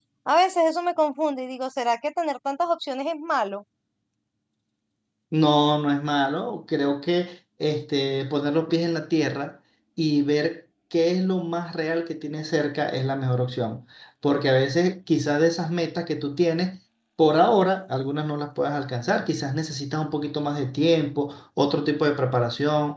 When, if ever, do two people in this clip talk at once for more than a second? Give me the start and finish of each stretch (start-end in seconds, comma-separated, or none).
none